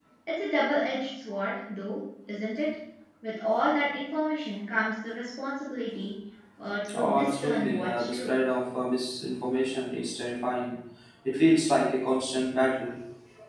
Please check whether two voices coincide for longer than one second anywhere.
Yes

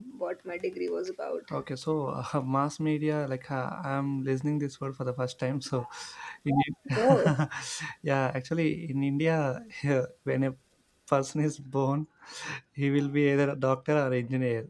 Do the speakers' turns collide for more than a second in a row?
No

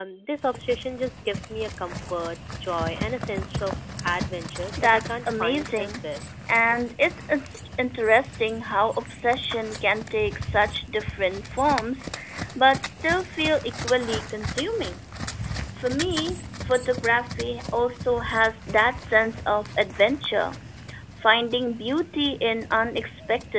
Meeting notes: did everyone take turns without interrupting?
No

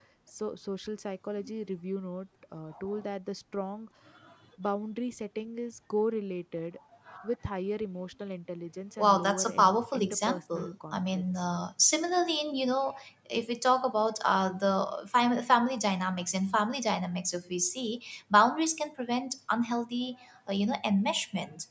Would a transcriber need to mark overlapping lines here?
Yes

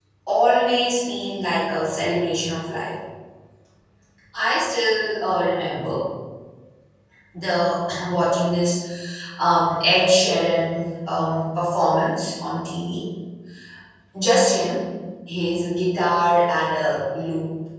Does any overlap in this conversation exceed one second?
No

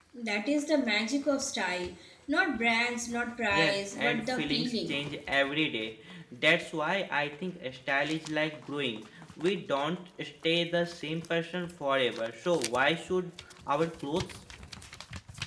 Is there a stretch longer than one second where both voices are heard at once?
Yes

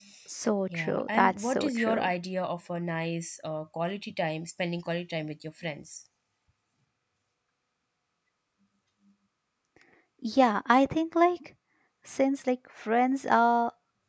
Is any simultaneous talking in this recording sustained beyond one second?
Yes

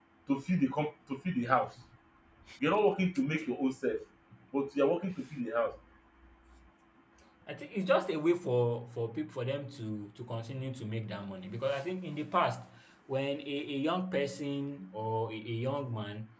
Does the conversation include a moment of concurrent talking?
No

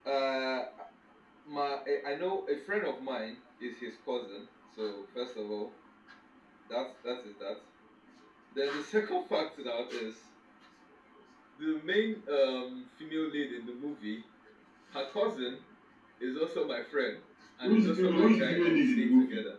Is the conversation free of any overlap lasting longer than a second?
No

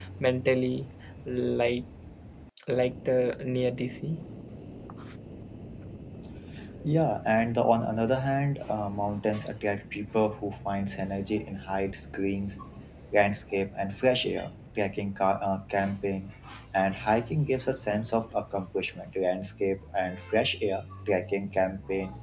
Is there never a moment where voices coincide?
Yes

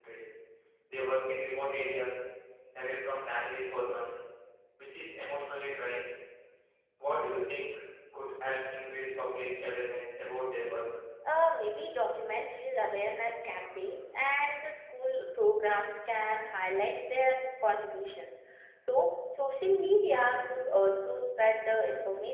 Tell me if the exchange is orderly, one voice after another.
Yes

